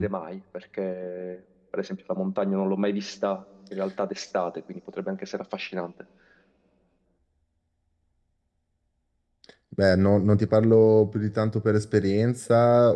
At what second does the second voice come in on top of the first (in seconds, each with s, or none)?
none